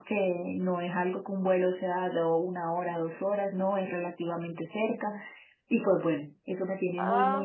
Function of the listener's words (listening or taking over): taking over